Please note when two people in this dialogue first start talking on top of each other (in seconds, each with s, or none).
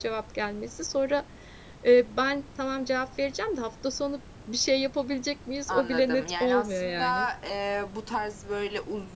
5.7 s